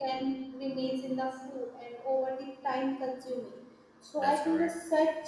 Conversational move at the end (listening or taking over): listening